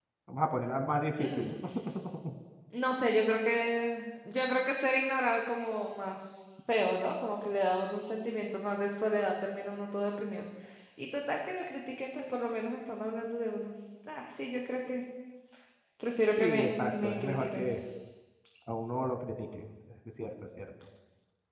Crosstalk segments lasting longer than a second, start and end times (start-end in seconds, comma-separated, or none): 16.4-17.7